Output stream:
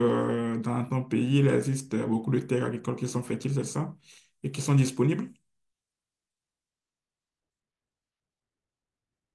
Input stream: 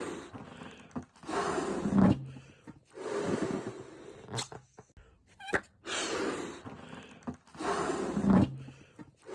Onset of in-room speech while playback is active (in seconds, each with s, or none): none